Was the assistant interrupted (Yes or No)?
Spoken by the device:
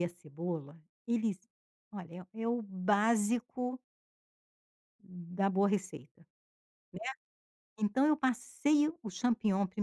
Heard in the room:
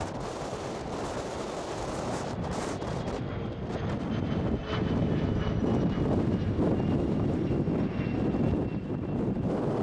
No